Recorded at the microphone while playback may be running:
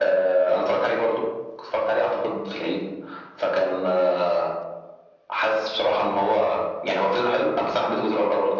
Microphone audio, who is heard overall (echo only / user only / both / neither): echo only